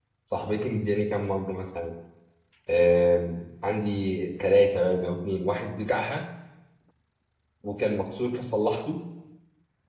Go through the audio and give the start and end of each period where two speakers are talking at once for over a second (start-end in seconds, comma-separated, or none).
none